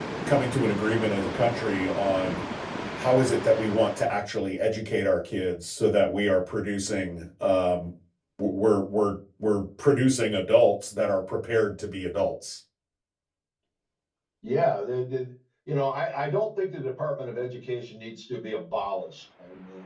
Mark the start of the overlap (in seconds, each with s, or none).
none